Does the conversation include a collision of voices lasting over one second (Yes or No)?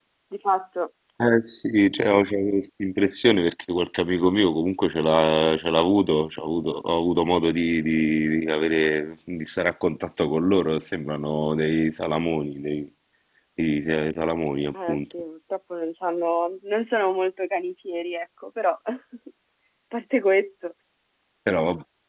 No